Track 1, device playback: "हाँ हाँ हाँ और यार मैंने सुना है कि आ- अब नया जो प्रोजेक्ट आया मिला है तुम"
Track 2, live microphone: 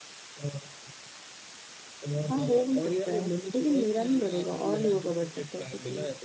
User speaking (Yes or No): Yes